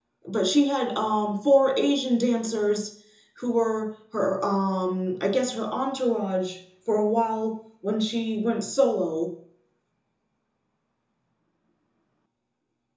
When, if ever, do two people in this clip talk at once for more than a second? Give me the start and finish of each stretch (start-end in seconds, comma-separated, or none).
none